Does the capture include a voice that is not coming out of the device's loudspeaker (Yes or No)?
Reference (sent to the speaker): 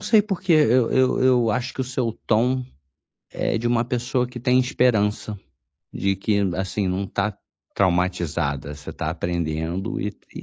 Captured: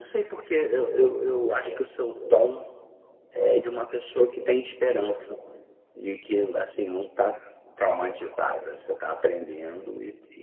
No